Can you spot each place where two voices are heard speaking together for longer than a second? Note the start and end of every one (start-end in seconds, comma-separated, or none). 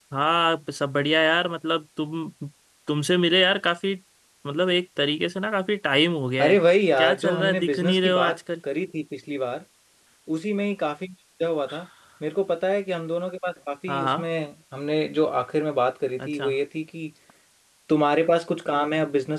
7.0-8.4